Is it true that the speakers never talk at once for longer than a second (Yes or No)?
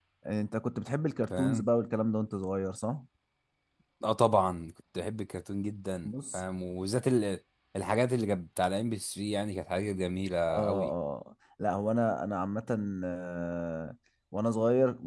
Yes